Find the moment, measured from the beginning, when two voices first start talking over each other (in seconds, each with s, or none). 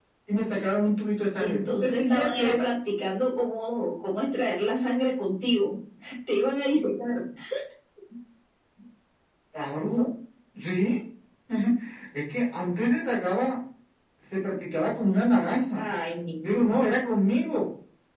1.4 s